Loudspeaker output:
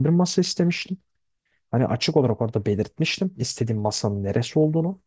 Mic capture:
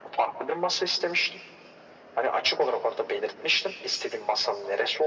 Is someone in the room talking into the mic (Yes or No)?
No